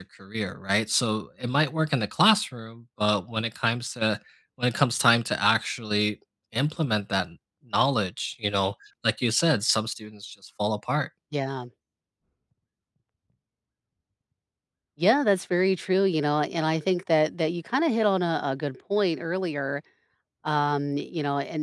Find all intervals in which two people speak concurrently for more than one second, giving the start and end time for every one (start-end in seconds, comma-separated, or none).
none